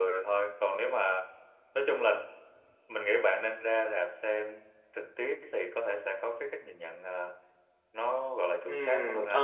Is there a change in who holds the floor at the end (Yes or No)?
Yes